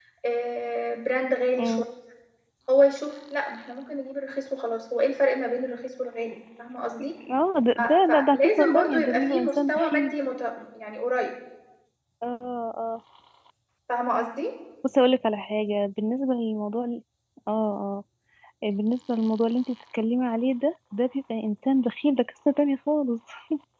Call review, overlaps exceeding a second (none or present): present